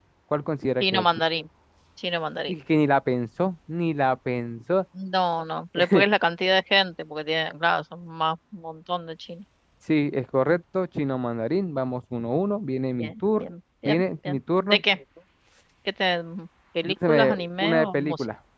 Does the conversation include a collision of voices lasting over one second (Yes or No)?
Yes